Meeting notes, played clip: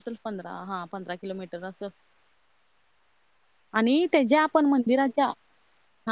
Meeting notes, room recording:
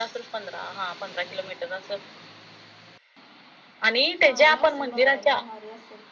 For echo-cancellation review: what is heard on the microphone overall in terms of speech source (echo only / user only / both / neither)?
both